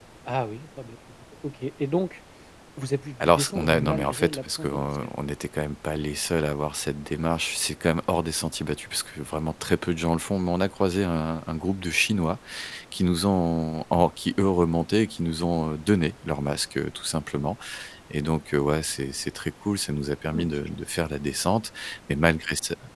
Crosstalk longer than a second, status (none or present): present